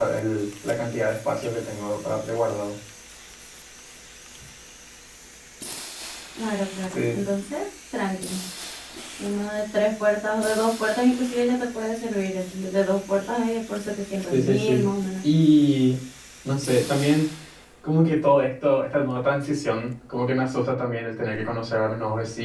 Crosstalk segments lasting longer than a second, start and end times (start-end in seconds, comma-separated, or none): none